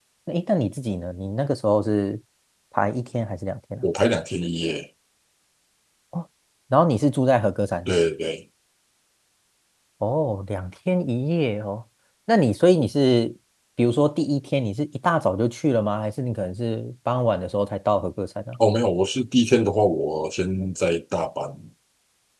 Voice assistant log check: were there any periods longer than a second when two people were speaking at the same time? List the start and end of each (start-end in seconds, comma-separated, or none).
none